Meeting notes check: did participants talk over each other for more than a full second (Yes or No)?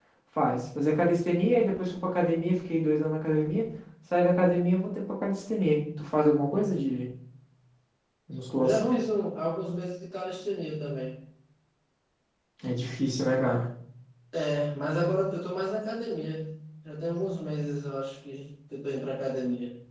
No